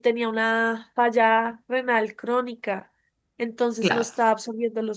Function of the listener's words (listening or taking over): listening